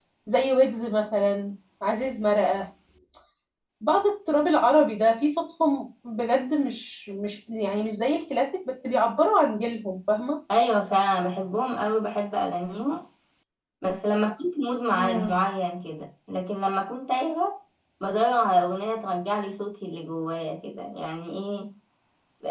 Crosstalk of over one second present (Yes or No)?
No